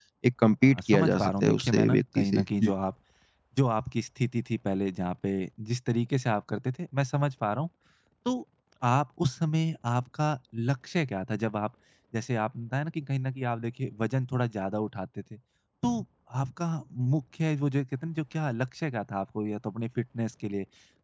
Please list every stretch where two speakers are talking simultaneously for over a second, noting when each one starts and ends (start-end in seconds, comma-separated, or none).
0.6-2.7